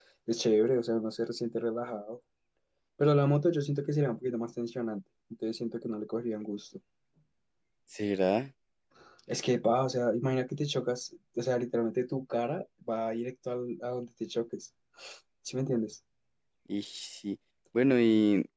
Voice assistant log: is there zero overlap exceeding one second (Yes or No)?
Yes